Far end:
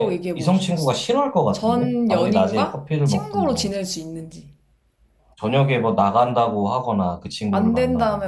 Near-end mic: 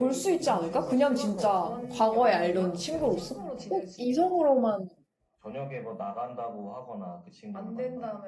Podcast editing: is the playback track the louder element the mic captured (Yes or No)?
No